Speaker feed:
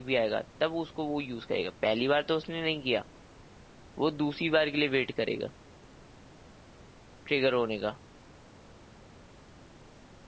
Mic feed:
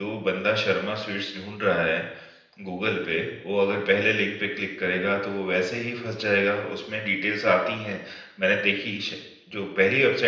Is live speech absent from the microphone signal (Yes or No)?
No